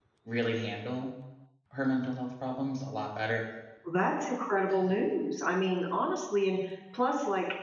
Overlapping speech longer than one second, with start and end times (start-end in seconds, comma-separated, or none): none